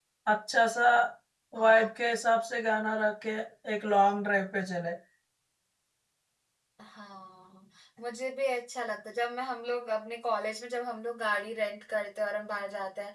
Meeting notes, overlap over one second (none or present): none